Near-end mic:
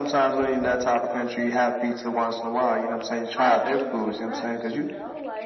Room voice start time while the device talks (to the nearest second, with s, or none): 3 s